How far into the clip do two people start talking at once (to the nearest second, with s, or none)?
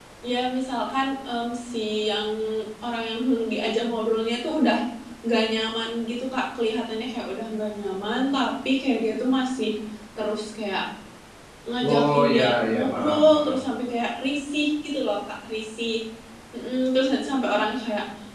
12 s